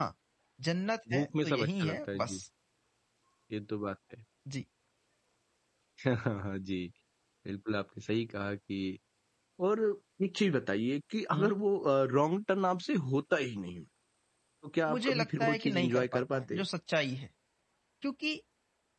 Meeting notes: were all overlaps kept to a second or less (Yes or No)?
No